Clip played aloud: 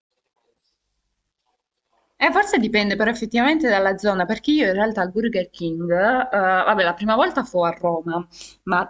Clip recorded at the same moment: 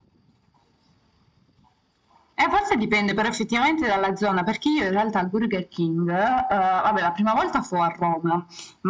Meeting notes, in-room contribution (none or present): none